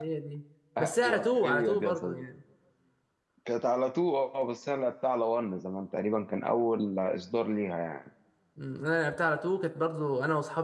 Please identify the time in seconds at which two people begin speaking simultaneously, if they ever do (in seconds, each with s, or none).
0.8 s